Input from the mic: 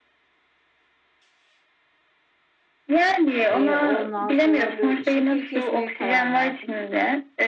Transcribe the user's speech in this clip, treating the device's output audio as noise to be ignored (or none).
Ee, ondan sonra böyle şekeri kesmeye karar verdim.